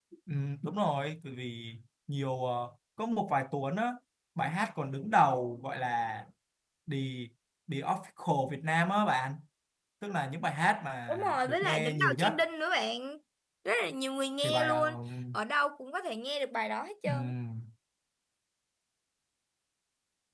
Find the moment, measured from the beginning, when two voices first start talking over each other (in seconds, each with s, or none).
11.1 s